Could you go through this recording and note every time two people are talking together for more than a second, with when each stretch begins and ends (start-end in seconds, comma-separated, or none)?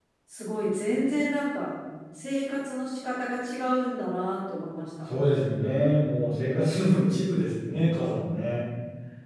none